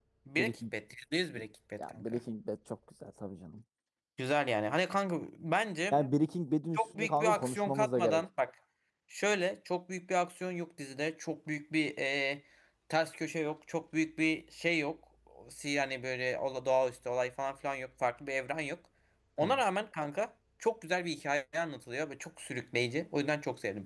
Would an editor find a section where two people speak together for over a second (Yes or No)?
Yes